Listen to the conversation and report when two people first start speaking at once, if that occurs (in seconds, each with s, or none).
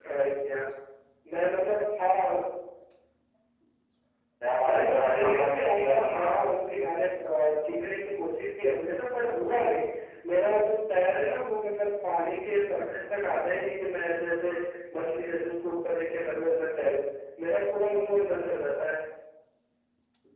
4.7 s